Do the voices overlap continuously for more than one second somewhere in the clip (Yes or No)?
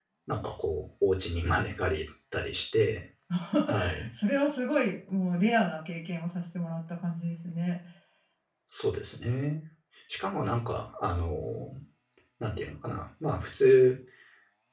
No